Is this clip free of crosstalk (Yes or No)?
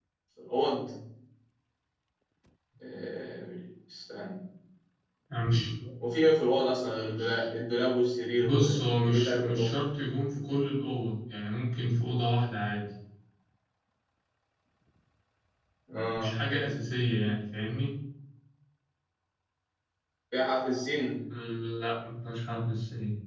No